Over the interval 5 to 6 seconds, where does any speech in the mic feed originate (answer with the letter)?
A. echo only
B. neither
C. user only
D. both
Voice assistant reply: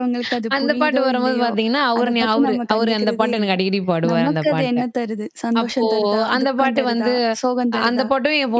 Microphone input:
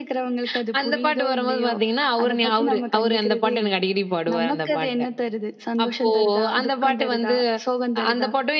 A